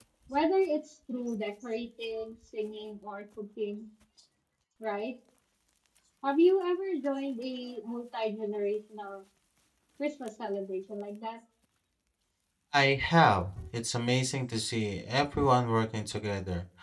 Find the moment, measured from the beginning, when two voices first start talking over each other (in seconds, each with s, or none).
none